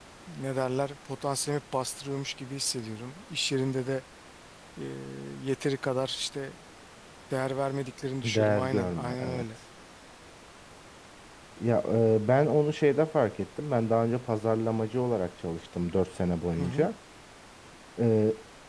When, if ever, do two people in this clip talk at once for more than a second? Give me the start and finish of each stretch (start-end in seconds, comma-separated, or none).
8.2-9.4